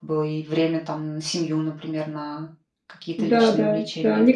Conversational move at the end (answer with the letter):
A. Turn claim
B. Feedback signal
A